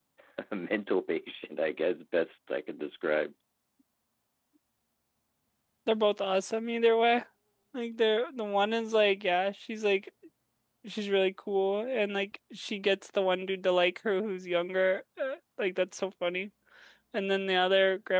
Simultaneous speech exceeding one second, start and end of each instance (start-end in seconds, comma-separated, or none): none